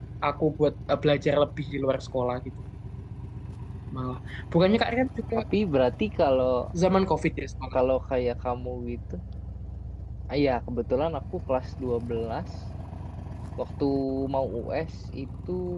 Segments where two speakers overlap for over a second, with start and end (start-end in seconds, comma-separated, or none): none